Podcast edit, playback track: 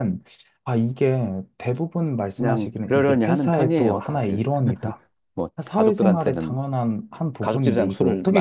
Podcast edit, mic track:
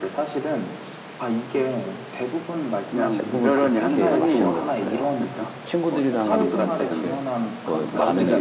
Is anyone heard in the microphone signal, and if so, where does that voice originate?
both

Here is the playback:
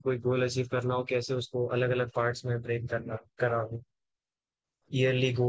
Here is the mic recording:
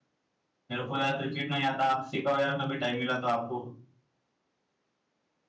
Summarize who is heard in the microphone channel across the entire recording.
user only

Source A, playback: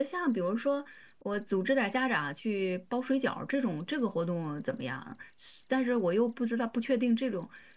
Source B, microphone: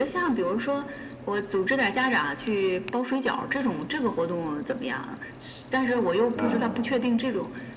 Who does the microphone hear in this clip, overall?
both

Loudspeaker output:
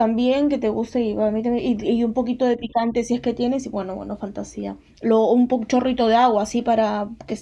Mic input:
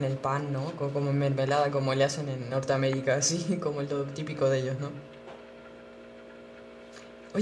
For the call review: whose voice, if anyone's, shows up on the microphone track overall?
user only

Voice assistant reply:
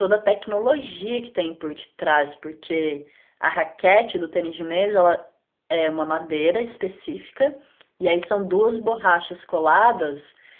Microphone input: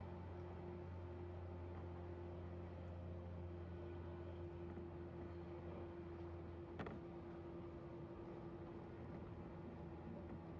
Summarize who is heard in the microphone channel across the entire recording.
neither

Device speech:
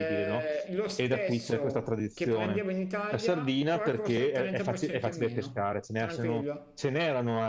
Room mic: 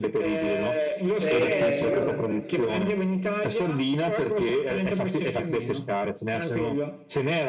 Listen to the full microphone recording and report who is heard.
both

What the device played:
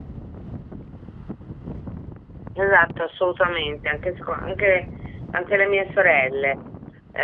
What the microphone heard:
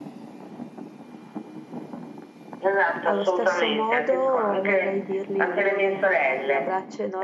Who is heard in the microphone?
both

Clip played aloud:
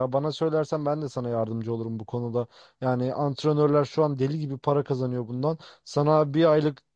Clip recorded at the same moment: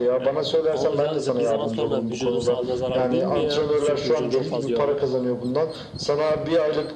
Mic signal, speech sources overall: both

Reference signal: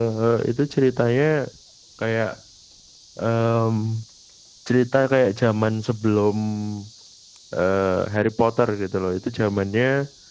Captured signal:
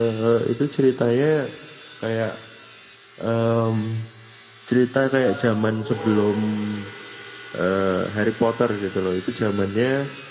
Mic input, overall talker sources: both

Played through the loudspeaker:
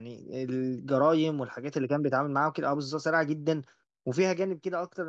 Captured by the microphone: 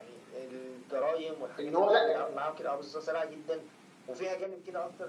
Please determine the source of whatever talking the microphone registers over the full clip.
both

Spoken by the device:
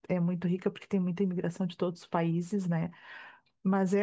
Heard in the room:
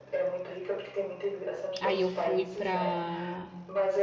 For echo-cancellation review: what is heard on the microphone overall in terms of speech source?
both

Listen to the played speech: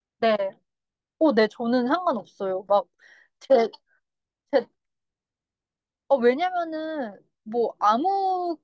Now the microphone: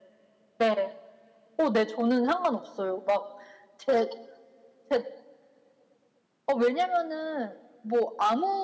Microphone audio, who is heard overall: echo only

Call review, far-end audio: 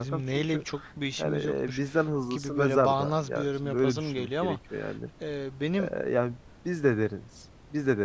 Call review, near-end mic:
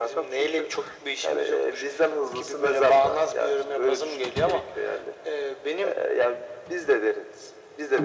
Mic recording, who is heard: echo only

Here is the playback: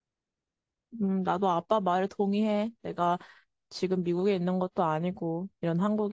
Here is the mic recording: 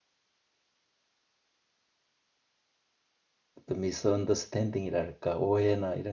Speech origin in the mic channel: user only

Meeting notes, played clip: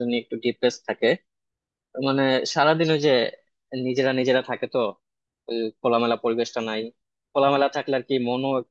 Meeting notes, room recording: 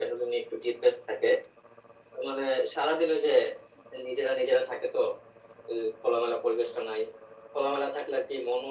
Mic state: echo only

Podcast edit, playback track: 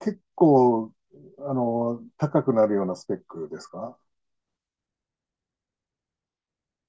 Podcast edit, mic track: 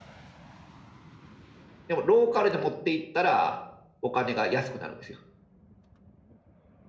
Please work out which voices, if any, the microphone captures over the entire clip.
user only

